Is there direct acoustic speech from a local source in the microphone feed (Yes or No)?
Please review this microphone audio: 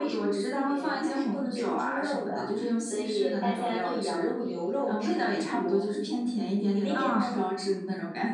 Yes